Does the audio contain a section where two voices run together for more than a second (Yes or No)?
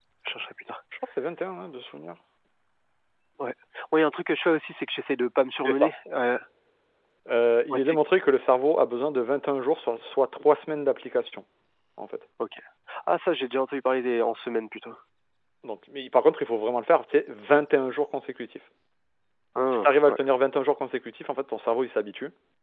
No